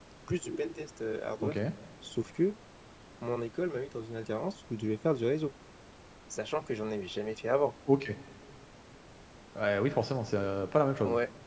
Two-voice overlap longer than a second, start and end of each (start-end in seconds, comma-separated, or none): none